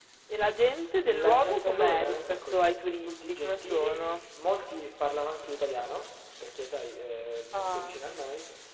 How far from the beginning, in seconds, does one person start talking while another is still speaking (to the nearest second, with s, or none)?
1 s